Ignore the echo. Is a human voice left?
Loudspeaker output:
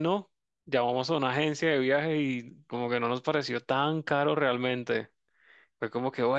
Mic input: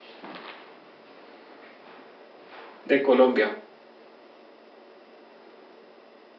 Yes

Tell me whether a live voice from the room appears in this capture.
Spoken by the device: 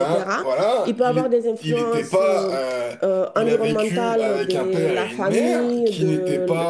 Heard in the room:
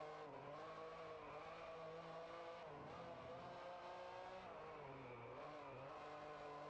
No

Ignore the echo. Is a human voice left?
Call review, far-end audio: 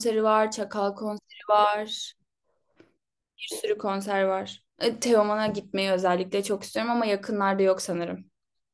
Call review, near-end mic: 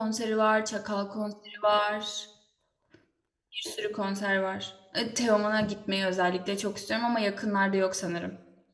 No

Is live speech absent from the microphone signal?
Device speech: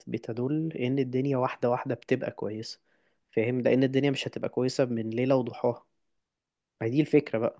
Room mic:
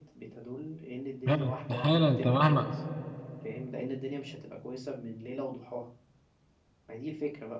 No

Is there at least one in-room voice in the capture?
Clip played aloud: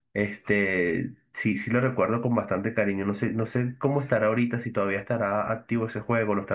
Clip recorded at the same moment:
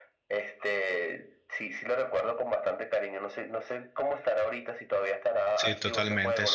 Yes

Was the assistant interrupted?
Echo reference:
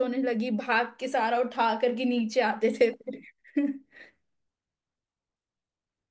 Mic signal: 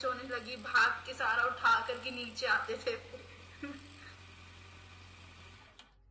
No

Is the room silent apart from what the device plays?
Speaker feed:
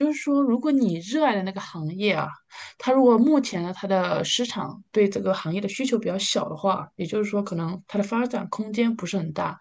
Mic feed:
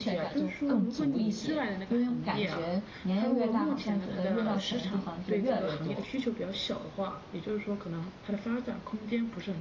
No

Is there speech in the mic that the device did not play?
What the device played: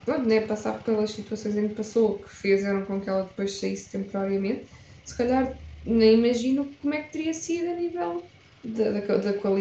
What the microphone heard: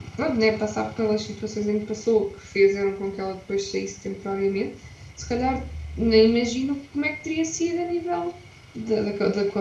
No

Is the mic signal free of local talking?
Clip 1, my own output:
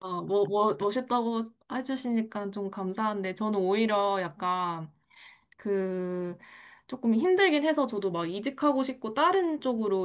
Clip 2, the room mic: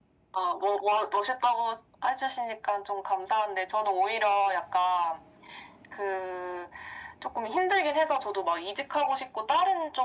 Yes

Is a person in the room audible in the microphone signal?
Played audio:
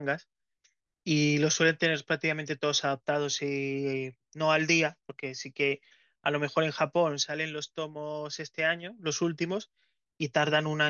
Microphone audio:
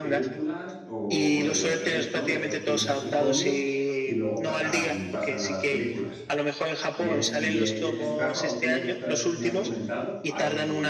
Yes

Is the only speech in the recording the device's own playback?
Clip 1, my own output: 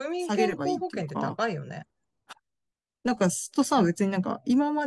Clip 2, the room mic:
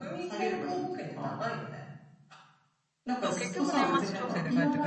No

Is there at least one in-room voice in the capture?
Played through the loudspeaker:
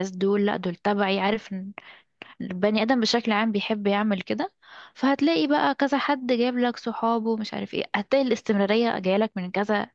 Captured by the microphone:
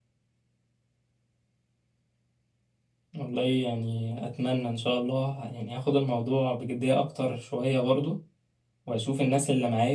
Yes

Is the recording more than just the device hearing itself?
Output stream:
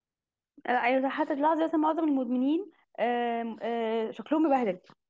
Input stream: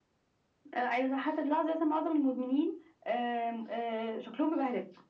No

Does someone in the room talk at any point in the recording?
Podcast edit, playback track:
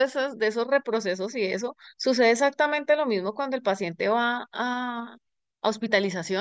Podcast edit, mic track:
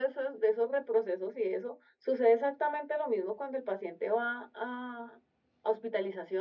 No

